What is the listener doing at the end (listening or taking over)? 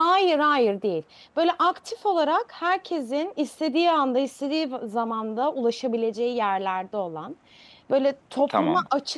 listening